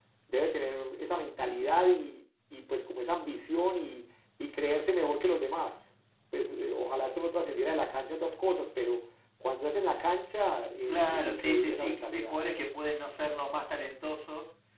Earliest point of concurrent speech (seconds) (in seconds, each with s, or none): 10.9 s